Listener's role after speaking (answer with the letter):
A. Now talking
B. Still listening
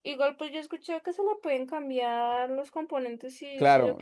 A